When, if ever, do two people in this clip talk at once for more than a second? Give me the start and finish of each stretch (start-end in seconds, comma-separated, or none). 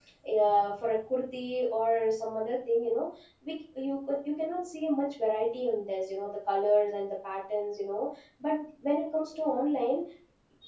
none